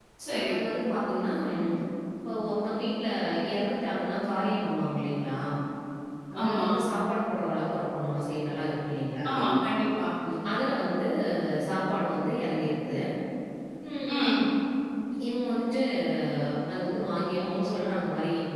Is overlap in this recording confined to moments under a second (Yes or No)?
Yes